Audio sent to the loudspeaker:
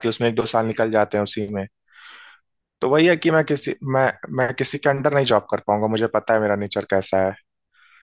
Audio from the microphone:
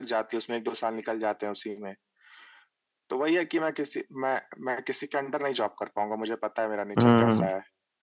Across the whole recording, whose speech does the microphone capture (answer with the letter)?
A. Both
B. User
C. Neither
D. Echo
A